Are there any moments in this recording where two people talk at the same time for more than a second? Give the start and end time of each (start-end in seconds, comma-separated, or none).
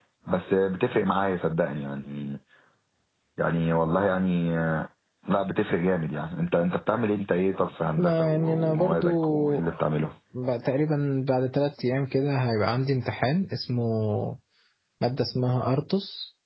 8.0-9.6